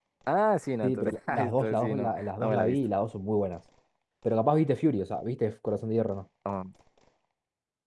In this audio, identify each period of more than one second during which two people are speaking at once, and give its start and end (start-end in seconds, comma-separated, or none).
0.8-2.8